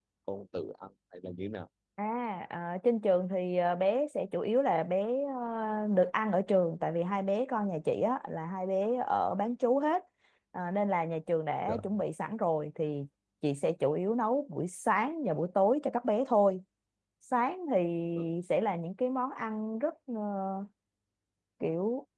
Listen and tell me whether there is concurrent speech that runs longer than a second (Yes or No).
No